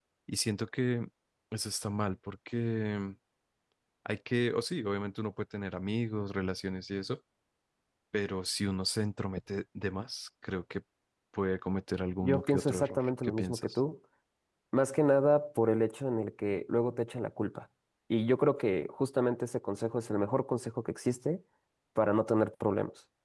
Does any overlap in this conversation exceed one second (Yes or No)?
Yes